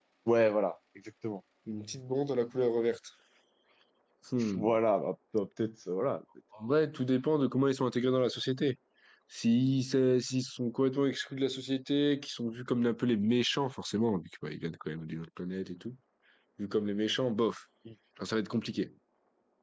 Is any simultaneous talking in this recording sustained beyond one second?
No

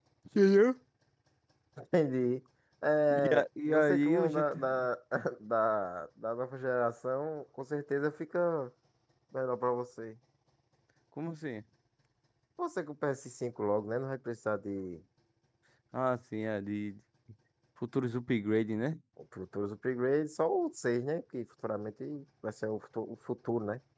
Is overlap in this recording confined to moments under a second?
No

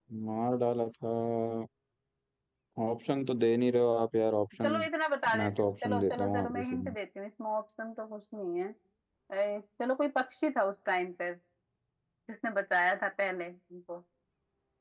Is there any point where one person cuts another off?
Yes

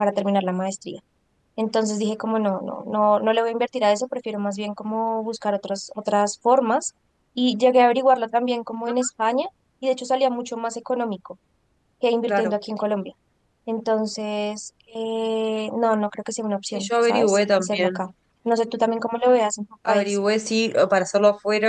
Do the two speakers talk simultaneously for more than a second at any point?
Yes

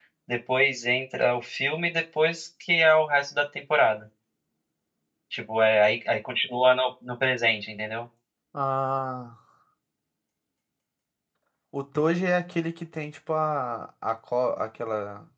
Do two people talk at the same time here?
No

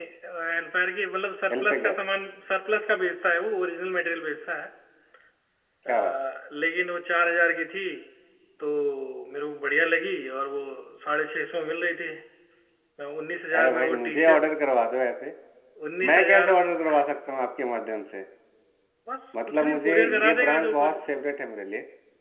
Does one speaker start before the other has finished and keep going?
Yes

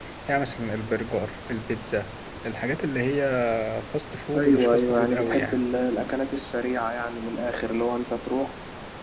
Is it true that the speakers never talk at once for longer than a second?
No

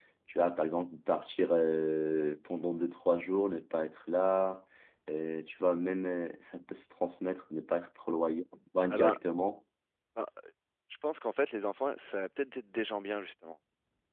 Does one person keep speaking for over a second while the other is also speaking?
No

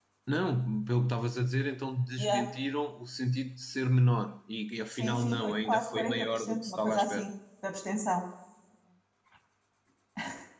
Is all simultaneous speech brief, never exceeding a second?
No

